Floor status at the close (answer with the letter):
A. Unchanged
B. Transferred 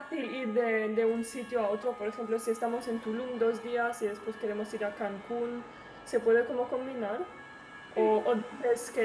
A